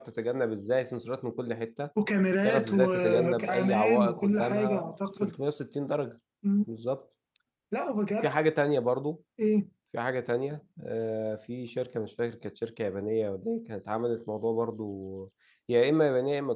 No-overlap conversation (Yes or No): No